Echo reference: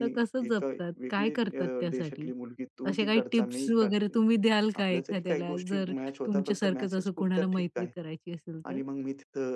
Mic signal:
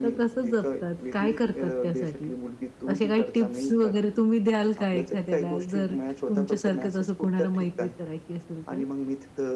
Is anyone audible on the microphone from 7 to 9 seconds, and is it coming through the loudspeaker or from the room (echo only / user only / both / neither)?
echo only